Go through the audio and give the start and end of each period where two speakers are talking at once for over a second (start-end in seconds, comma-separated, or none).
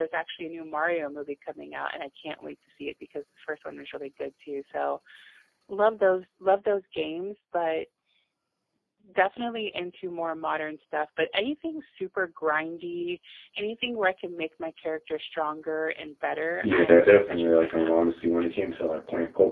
16.6-17.9